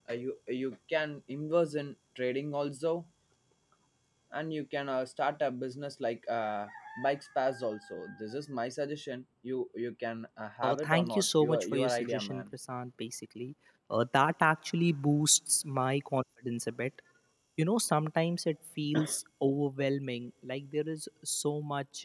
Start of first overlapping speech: 10.6 s

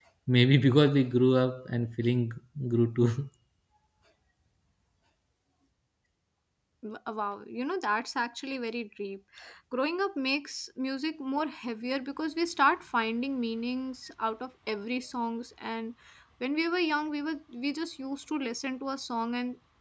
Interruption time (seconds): none

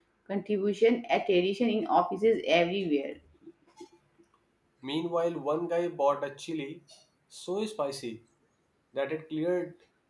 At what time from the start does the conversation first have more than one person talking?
none

